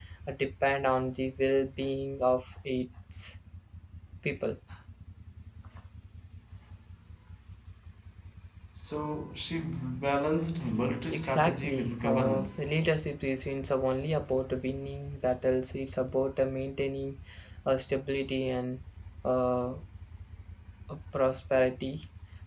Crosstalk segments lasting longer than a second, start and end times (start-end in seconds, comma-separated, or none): 11.1-12.6